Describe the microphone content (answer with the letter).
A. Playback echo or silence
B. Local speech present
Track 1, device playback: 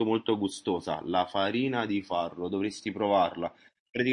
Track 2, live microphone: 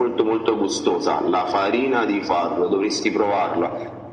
A